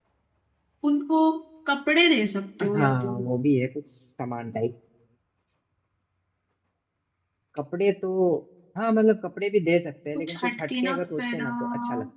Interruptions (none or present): present